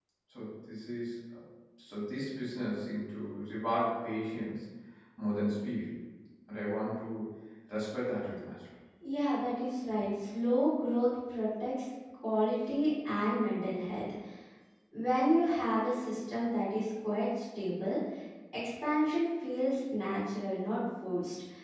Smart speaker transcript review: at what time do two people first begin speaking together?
none

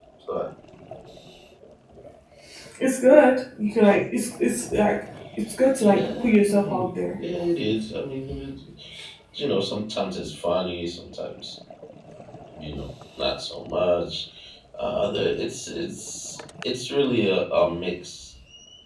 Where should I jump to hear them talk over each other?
6 s

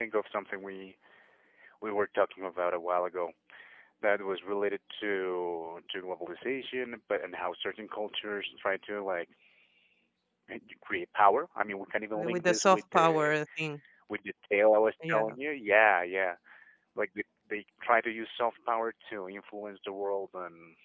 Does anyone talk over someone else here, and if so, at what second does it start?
12 s

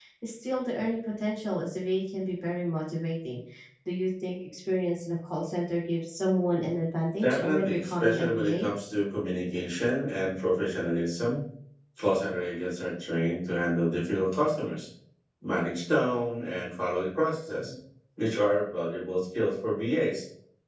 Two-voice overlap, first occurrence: 7 s

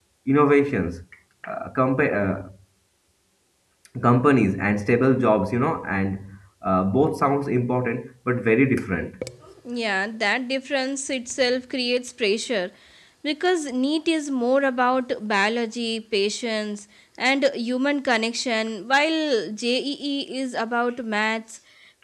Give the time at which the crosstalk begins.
none

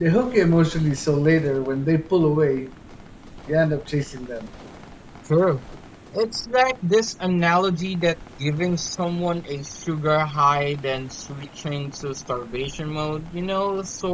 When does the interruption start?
none

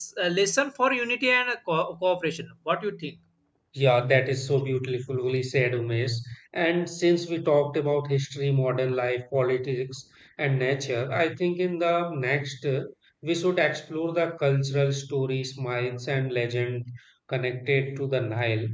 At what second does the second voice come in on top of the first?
none

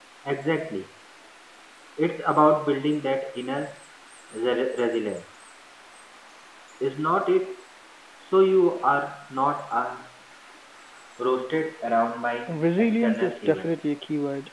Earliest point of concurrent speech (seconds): 12 s

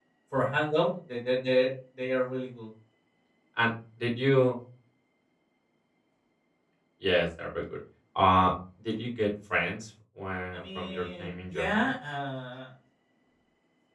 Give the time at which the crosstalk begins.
11 s

